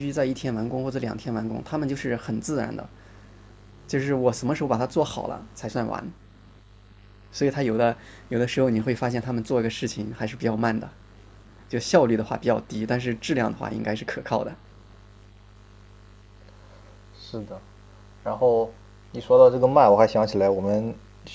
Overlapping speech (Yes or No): No